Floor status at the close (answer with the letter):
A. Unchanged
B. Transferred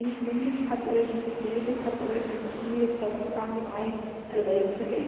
A